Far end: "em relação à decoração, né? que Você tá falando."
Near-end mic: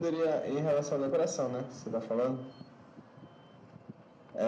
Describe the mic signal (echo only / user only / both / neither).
echo only